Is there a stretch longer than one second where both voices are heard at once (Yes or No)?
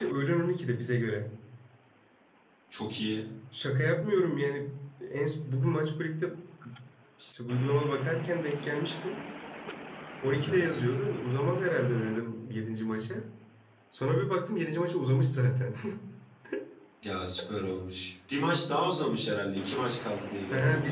No